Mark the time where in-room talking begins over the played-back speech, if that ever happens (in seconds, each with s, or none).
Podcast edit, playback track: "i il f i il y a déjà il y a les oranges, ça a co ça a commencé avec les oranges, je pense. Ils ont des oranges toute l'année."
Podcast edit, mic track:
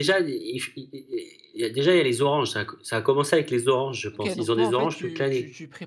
4.1 s